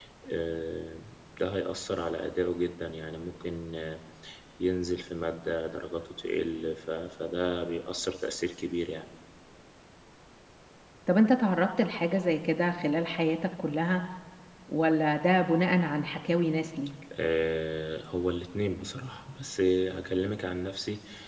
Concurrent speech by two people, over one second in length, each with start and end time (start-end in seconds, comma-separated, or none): none